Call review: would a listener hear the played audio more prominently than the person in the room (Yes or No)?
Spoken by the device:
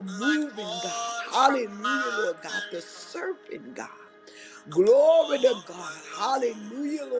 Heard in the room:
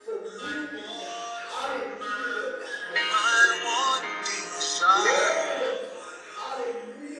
No